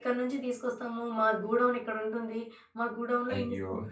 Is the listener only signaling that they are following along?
Yes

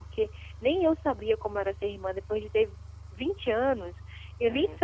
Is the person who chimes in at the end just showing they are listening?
Yes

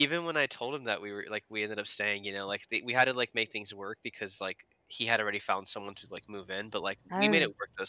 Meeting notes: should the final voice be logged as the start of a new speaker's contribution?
No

